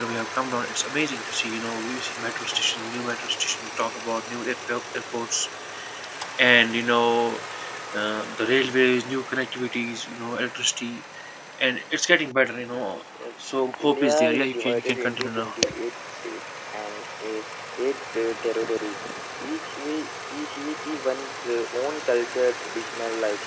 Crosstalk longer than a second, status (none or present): present